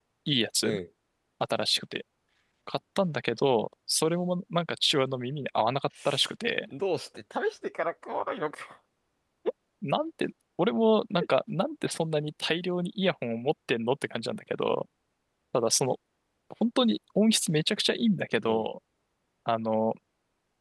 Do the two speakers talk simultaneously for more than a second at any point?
No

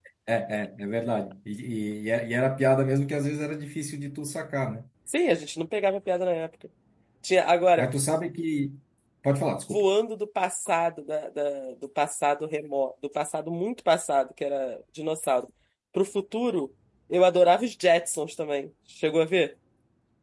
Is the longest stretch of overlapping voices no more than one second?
Yes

